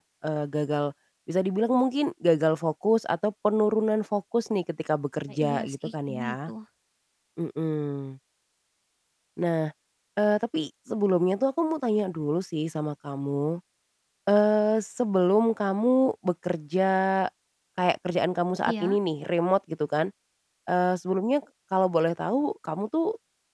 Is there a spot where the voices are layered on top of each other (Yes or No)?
Yes